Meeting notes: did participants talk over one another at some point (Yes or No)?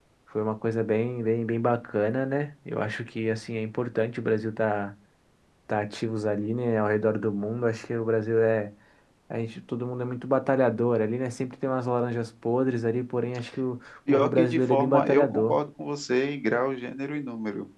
Yes